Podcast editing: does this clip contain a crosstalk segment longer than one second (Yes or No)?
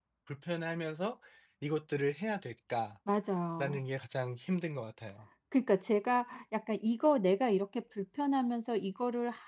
No